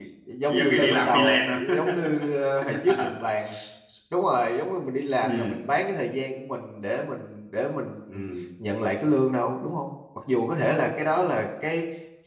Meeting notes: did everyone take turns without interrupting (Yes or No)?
No